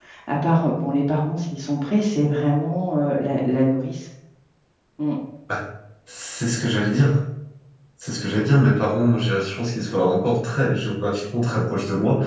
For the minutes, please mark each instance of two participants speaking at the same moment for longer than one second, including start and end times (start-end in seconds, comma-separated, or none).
none